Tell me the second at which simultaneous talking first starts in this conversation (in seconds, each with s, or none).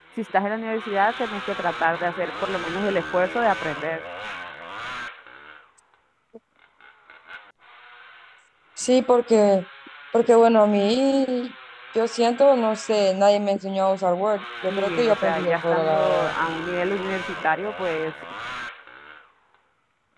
14.7 s